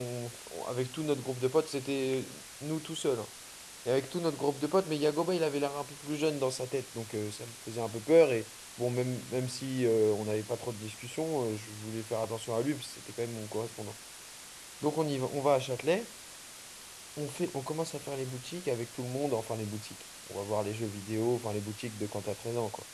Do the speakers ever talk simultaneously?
No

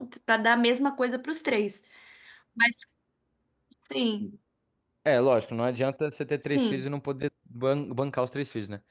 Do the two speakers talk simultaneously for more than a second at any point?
No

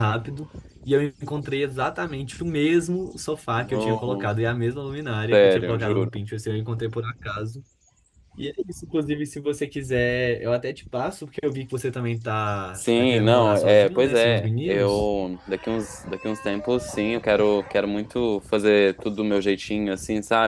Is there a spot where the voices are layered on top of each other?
Yes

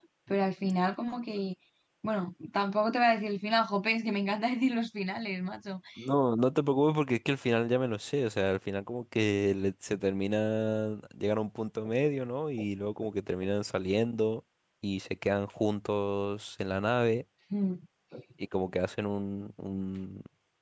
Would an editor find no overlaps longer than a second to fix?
Yes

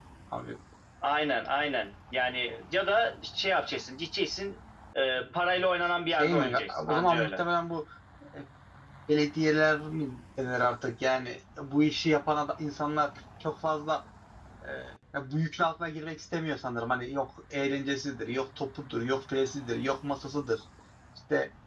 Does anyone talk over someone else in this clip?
Yes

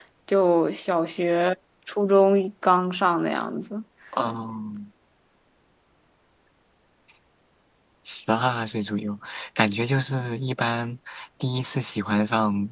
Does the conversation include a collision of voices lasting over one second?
No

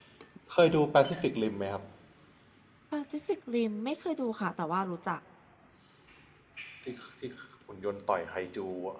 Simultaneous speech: No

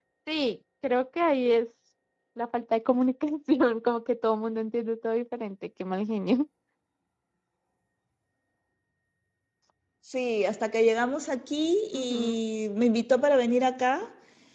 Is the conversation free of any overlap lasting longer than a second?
Yes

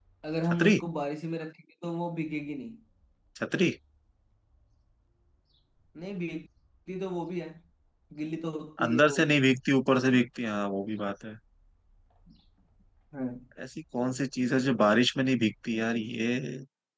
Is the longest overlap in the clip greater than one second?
No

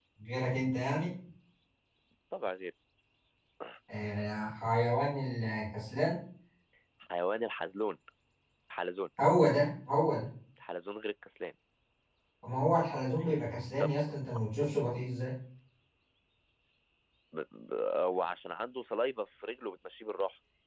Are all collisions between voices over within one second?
Yes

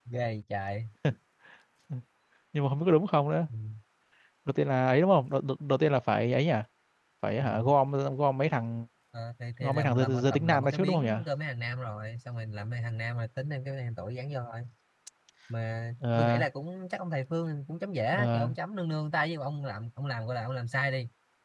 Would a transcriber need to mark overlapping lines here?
Yes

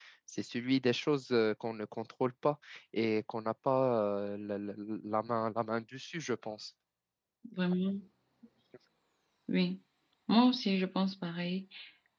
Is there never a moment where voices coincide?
Yes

